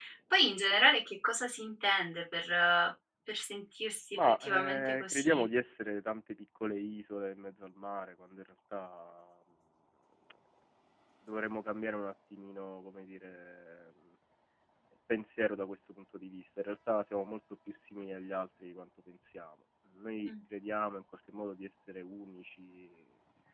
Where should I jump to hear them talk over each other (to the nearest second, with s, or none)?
4 s